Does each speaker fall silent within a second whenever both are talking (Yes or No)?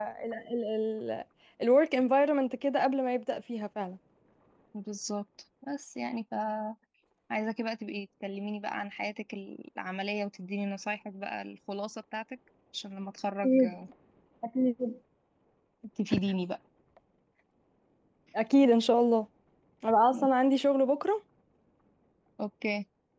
Yes